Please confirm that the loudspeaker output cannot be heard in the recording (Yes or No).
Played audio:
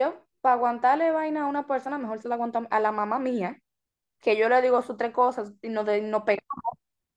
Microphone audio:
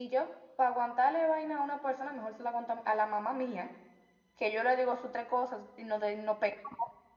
No